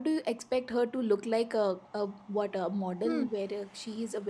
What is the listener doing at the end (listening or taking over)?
listening